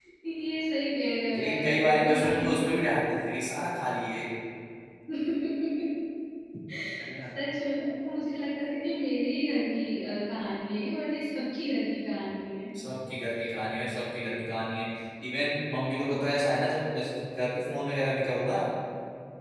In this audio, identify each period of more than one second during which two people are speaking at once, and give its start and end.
1.4-2.6

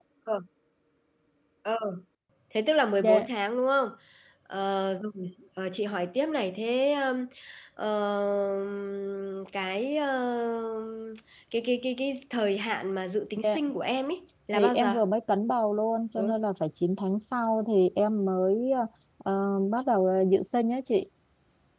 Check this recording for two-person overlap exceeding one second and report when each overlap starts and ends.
none

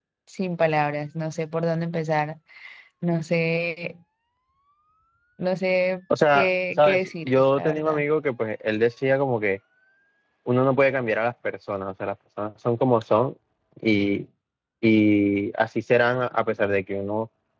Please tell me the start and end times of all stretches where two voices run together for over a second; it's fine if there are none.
6.3-8.0

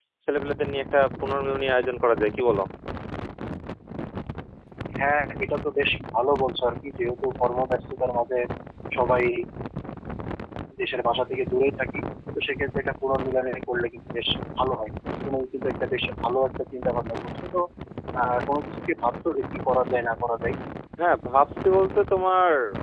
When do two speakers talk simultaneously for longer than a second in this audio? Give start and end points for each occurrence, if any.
none

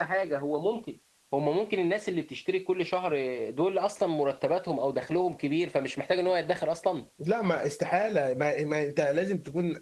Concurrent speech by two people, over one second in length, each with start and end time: none

